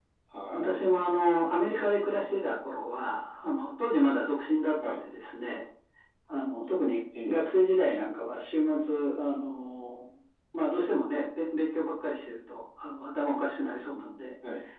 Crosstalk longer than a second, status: none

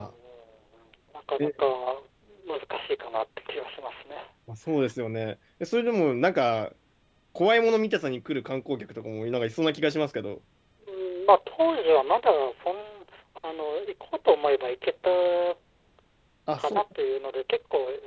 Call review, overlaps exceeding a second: none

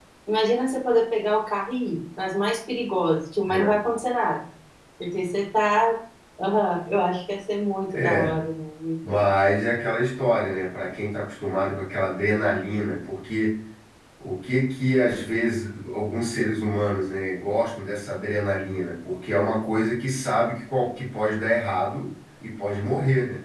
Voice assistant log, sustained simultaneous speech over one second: none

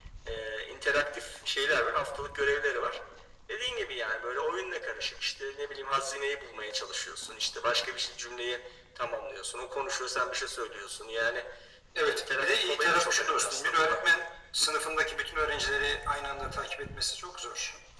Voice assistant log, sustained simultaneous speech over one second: present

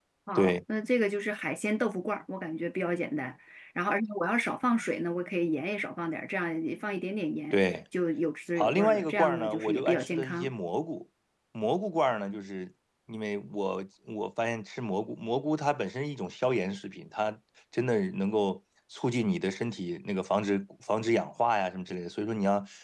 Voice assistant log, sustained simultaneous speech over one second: present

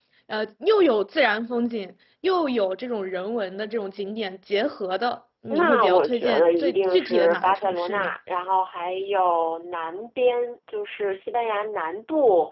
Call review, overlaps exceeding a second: present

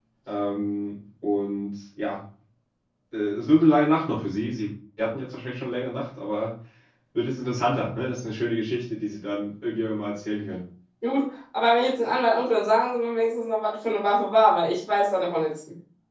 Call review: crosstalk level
none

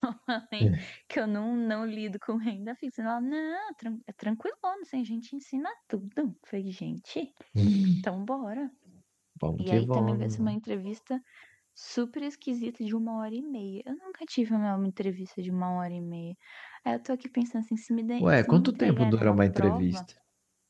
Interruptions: present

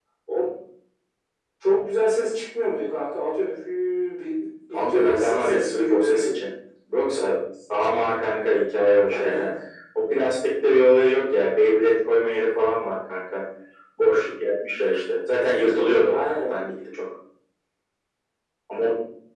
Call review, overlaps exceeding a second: present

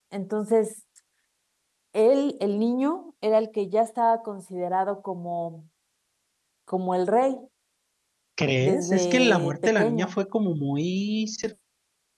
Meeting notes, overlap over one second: present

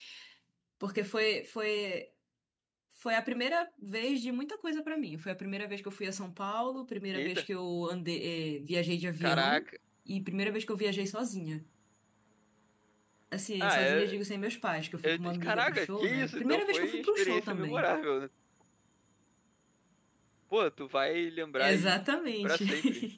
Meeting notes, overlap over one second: present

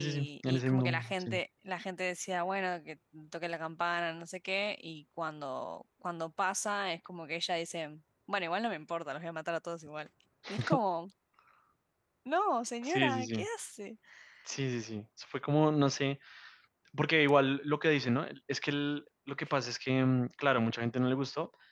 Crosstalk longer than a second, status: present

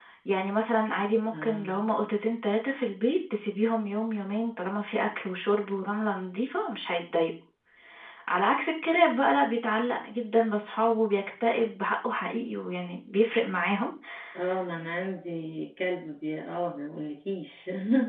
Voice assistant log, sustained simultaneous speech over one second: none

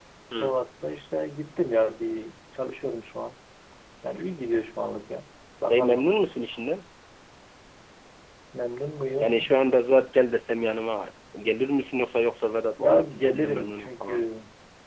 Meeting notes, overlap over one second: present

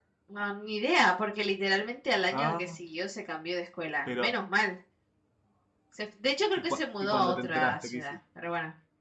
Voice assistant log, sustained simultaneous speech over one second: present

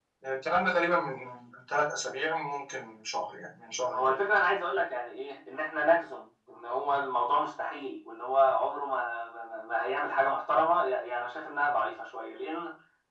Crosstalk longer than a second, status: none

